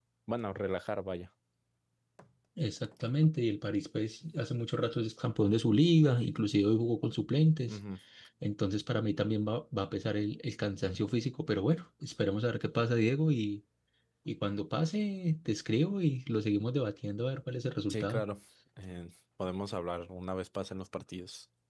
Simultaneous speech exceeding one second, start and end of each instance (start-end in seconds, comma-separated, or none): none